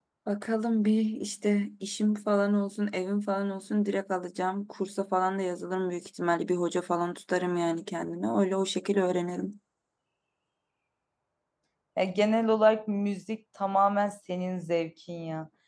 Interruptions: none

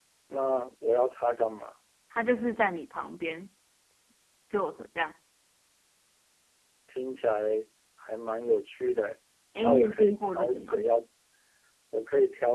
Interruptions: present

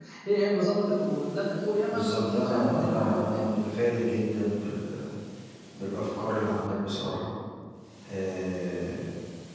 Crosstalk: present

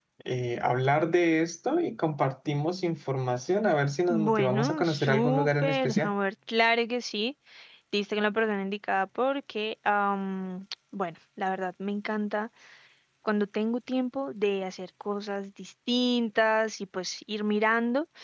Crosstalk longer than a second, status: present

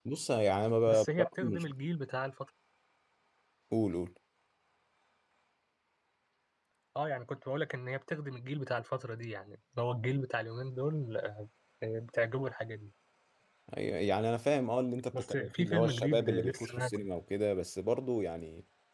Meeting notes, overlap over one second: present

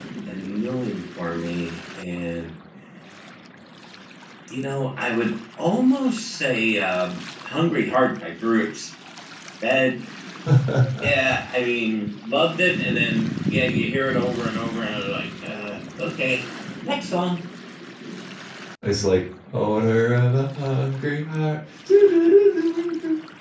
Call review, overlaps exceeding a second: none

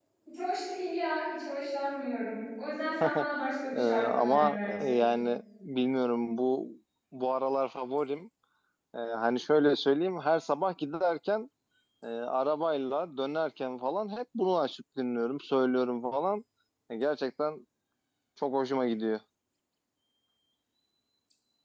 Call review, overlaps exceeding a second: present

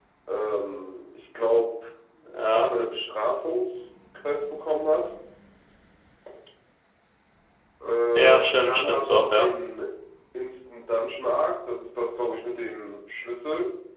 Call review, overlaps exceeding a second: present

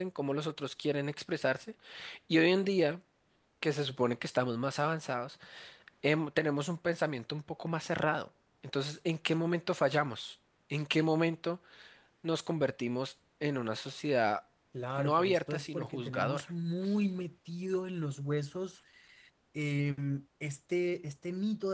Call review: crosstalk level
present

